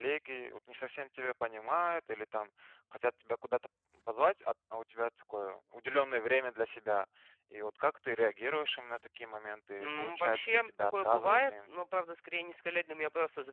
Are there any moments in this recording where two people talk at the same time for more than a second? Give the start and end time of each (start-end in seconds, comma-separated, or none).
9.8-11.5